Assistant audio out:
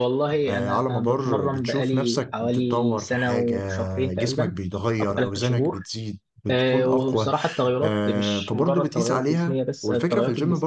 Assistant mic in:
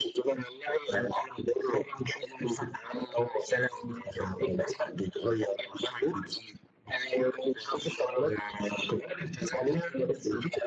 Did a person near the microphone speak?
No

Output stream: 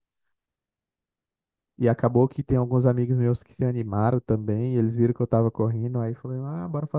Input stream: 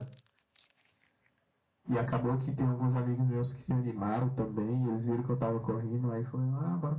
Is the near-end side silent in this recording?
Yes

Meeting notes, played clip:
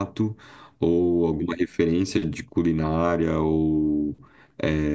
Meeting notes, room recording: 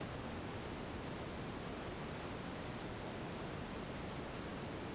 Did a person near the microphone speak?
No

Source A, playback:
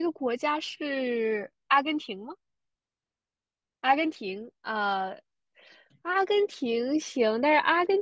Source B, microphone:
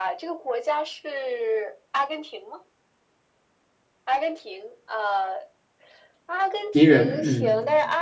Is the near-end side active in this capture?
Yes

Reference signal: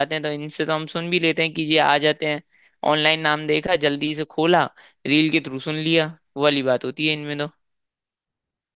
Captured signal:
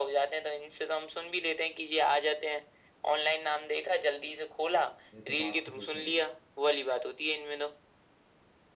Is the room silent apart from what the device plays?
No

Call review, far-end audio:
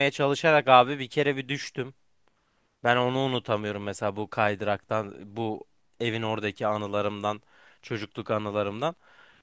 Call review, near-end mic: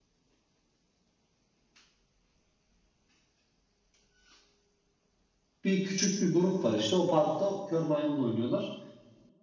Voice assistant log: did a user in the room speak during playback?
Yes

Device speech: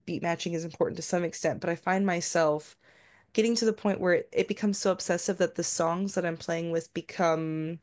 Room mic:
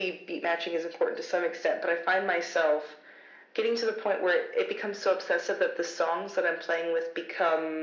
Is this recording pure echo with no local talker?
Yes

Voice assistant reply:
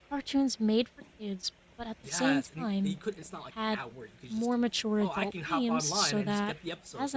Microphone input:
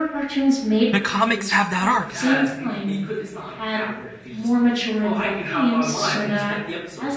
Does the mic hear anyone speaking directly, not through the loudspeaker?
Yes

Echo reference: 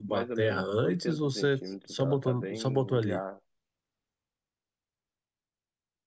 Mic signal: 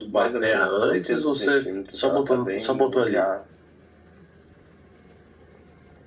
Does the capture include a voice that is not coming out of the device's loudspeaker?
No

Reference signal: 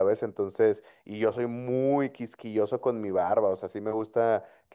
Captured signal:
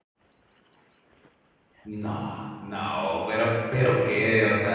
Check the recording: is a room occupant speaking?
Yes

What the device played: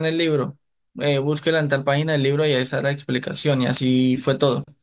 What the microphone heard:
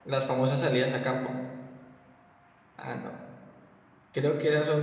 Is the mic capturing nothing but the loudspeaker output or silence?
No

